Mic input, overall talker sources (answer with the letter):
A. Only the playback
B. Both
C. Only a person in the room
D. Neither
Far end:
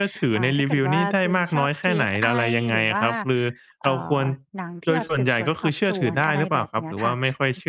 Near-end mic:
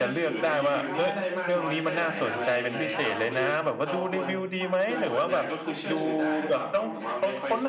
B